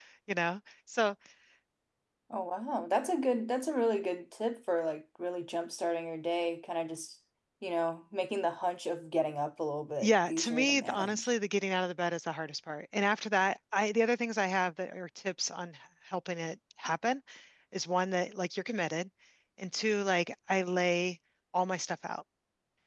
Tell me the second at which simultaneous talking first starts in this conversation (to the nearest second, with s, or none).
10 s